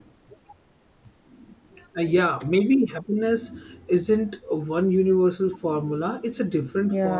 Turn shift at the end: Yes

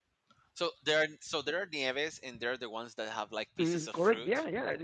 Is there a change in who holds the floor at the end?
Yes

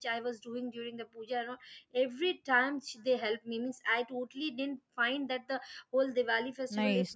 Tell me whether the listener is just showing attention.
No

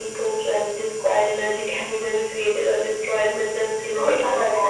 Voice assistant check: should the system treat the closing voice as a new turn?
No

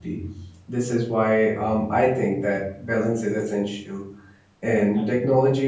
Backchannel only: Yes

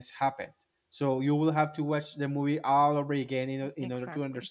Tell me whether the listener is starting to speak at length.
Yes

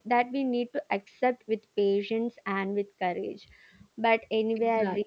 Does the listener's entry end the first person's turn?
No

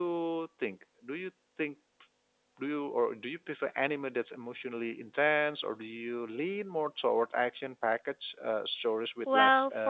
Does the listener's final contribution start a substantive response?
Yes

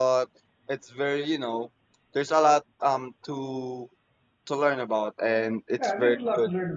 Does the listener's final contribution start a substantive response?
Yes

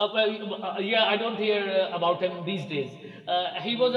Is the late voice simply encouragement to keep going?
Yes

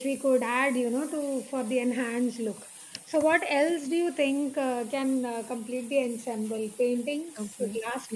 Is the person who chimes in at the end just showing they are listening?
No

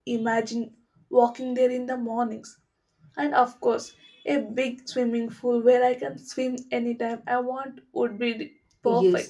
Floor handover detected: Yes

